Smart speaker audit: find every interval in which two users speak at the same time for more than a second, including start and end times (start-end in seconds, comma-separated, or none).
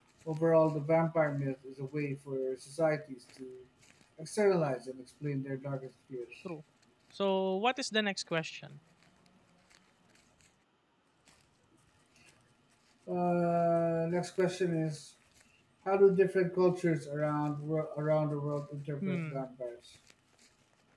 none